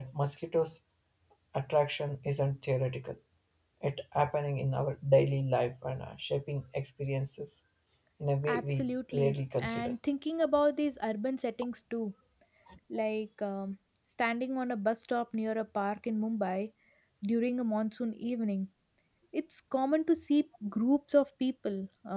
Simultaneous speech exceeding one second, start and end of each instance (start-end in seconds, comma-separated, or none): 8.5-9.9